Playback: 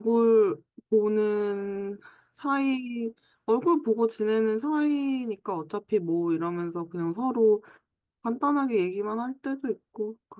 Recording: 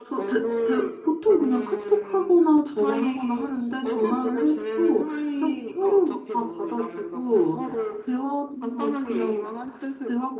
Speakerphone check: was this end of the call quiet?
No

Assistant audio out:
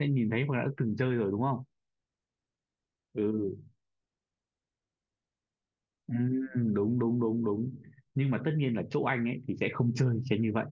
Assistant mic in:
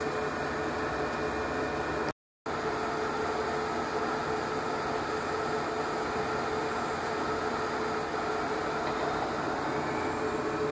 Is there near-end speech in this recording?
No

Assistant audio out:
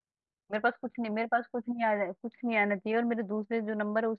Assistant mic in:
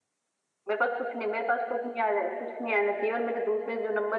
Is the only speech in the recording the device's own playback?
Yes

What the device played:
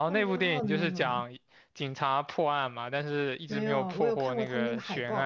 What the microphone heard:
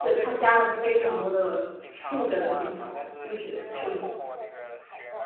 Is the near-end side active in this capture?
Yes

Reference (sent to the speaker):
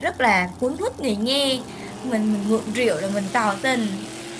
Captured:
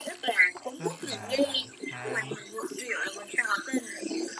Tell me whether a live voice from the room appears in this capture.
Yes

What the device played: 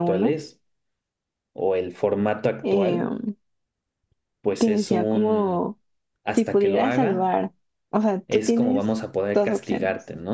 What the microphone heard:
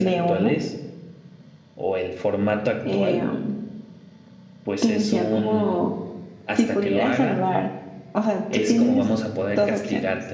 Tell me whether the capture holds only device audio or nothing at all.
Yes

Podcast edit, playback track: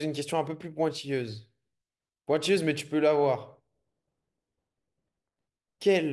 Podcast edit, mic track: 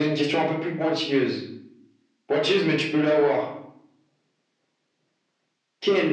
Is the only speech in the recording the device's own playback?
Yes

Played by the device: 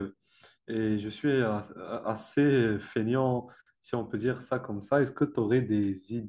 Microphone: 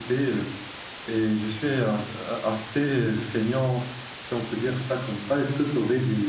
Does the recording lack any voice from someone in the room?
Yes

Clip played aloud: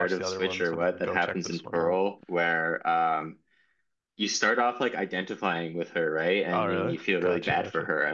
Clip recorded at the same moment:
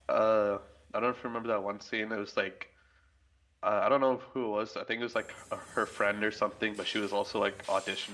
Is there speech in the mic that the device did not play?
Yes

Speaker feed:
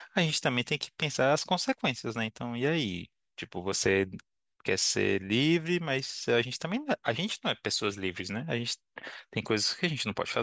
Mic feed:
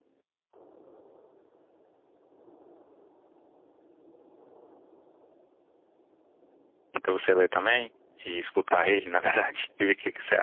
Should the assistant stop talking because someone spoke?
Yes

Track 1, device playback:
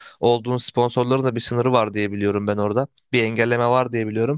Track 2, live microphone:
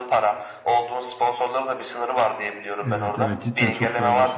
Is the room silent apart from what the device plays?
No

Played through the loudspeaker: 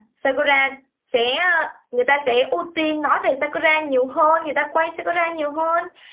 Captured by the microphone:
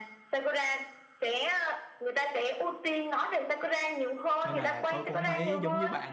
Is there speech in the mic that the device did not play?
Yes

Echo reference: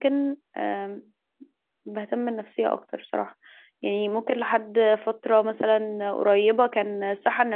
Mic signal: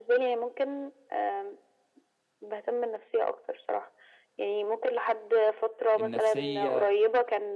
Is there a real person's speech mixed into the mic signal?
Yes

